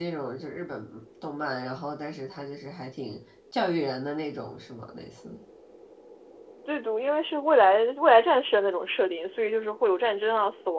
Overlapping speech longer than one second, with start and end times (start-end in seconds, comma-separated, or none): none